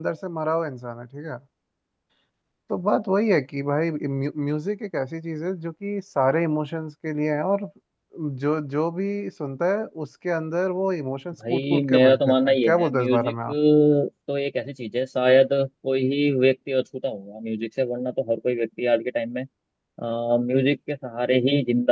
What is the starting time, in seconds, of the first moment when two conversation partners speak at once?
11.4 s

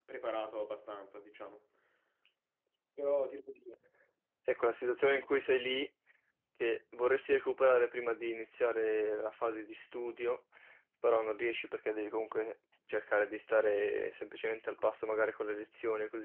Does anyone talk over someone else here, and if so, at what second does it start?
none

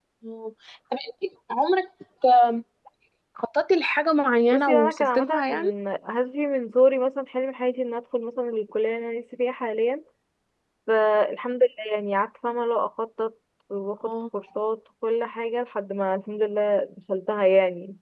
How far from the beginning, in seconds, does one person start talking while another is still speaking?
4.5 s

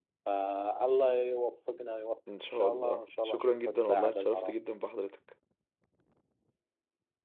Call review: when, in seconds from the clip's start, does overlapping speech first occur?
2.3 s

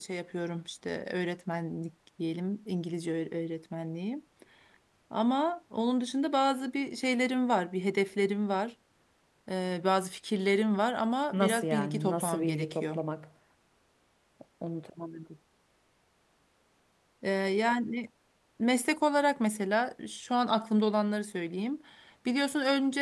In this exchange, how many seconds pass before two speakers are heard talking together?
11.3 s

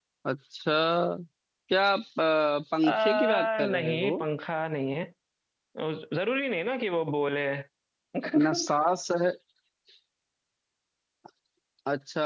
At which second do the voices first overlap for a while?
2.9 s

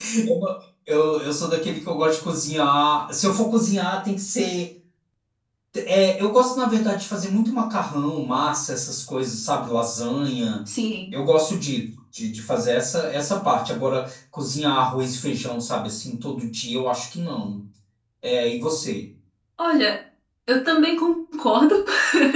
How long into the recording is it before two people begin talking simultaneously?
none

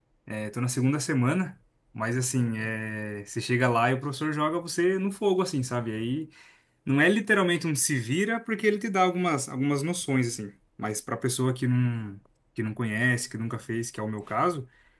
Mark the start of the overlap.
none

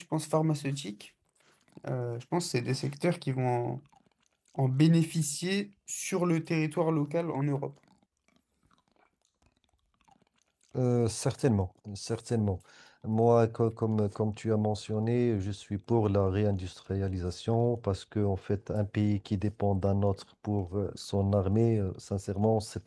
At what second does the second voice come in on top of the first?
none

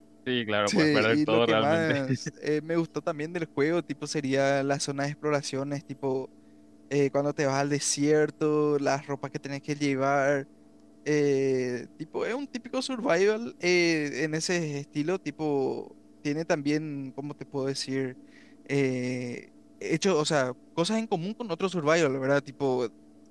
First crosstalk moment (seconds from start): 0.7 s

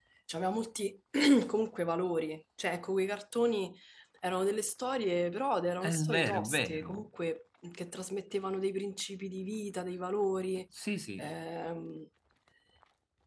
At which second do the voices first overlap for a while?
5.8 s

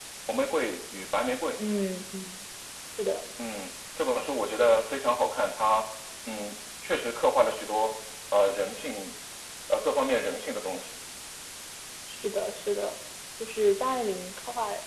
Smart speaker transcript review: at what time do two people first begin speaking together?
none

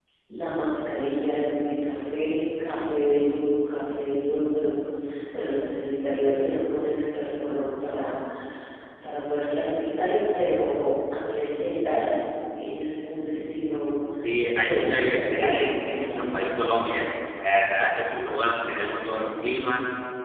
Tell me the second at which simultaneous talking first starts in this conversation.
14.6 s

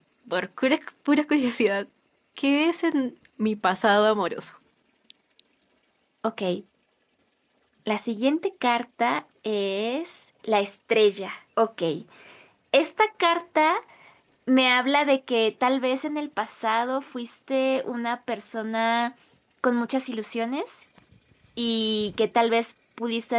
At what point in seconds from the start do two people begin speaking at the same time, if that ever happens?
none

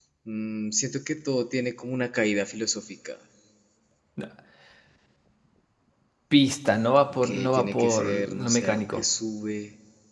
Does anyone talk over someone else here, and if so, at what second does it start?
7.2 s

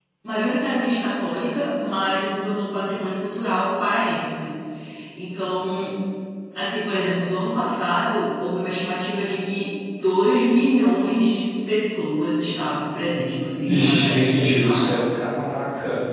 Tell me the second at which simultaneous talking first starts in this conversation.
13.7 s

